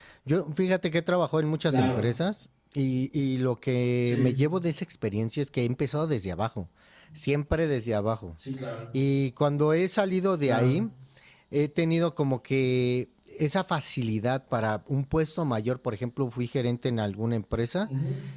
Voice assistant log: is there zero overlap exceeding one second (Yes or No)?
Yes